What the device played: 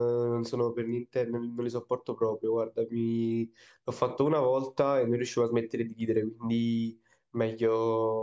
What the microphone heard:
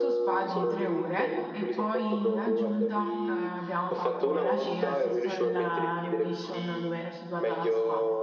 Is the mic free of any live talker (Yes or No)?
No